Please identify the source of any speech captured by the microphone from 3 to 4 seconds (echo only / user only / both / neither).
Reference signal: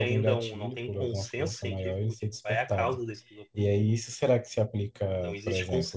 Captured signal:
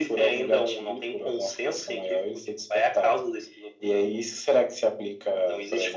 echo only